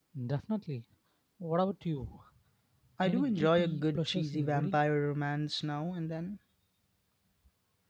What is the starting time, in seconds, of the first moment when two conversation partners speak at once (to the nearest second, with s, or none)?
3 s